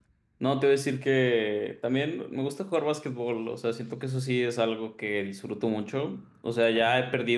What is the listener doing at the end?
listening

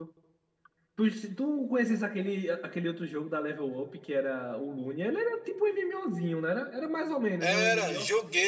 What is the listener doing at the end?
taking over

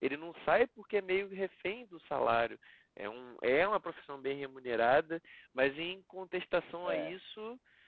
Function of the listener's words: listening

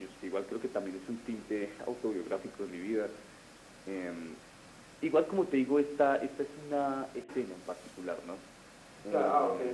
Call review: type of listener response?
taking over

